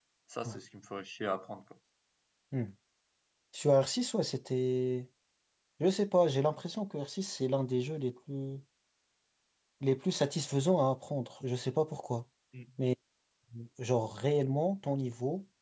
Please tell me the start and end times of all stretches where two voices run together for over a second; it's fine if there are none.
none

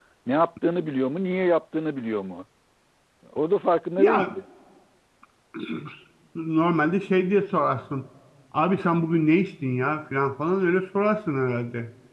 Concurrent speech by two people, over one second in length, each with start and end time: none

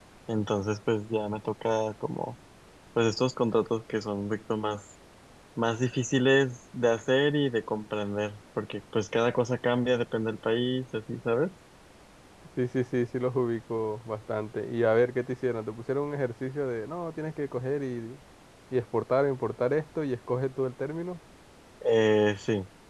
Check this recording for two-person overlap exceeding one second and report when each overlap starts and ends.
none

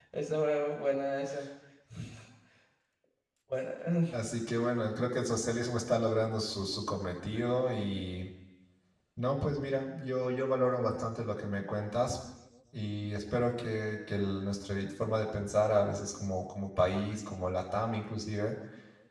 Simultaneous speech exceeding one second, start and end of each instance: none

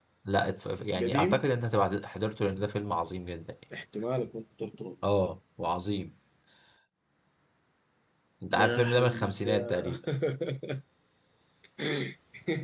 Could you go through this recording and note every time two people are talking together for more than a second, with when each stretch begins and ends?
8.5-10.0

